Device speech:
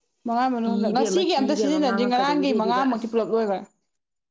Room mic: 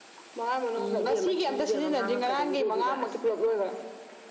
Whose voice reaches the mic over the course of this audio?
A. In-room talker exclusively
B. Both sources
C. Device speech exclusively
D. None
C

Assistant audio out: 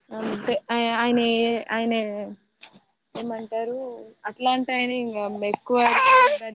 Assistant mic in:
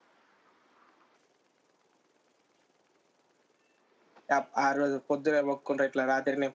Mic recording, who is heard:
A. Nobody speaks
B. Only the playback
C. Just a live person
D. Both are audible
C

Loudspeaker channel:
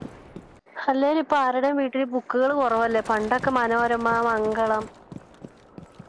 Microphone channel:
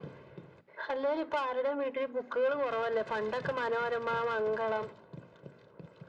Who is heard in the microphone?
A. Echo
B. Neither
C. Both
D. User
A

